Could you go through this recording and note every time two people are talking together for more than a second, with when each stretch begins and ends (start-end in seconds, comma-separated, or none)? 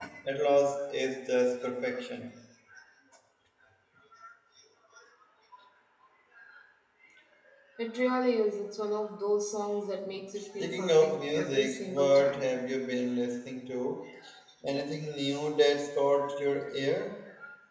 10.6-12.5